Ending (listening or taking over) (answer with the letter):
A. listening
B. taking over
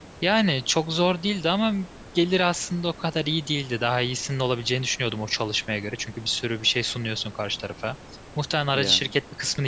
A